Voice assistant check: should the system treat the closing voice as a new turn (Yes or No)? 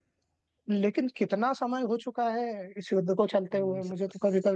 Yes